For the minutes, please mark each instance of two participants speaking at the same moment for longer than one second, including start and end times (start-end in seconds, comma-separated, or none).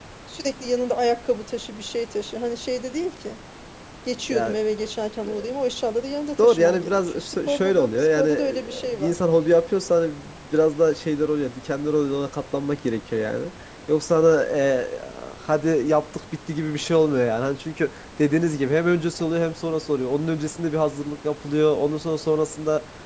6.4-9.2